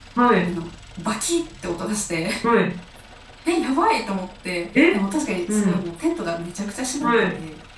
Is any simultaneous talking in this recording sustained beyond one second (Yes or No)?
No